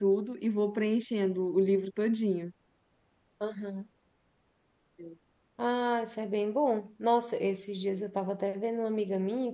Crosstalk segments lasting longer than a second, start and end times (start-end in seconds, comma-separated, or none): none